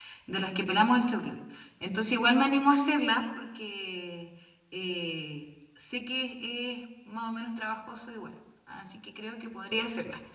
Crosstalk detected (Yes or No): No